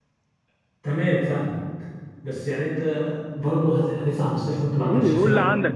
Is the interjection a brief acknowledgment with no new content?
No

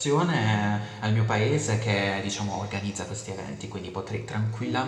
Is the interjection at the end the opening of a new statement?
No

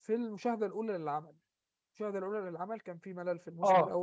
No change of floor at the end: Yes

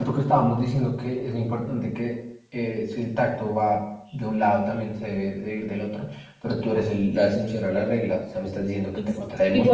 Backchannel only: No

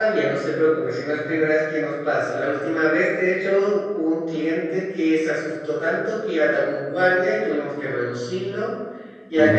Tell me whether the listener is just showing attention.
Yes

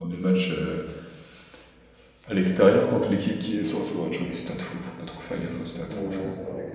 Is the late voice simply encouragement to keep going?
No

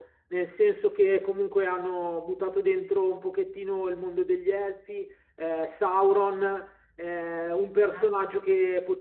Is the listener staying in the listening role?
Yes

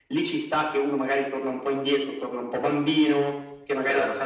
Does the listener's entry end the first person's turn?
No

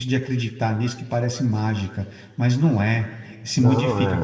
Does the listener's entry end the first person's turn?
No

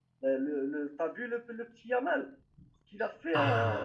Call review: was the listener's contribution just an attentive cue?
No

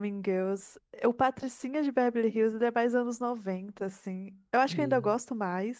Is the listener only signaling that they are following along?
Yes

